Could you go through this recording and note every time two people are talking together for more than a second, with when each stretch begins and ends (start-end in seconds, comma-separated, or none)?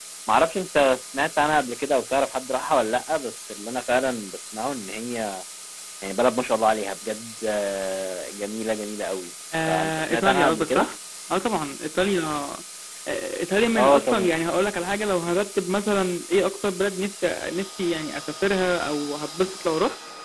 9.7-10.9